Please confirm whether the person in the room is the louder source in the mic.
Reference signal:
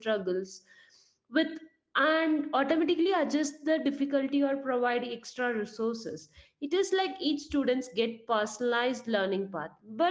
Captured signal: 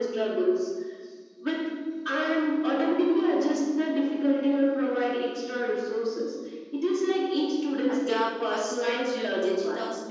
No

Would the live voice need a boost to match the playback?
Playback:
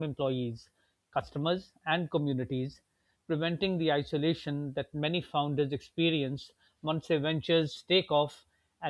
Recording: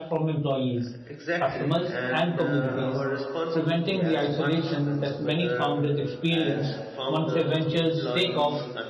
Yes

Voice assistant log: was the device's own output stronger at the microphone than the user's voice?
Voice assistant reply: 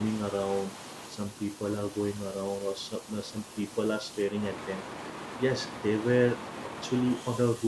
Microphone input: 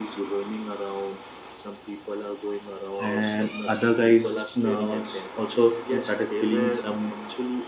No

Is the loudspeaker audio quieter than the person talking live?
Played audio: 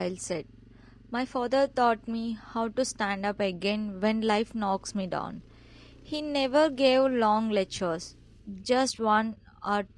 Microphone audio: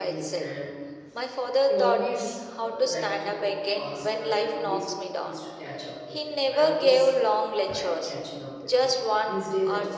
No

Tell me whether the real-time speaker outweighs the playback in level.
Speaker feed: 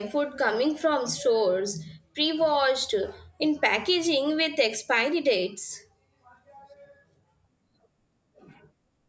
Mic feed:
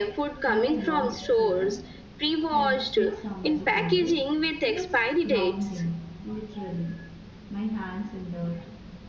No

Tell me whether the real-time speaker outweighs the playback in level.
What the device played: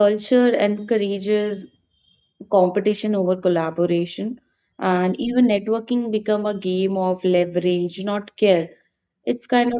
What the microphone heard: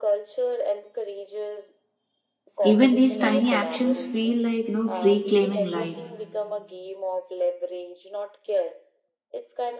Yes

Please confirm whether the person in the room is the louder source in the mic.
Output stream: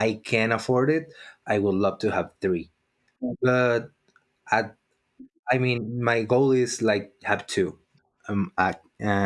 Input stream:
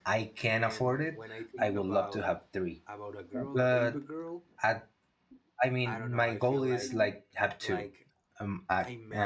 No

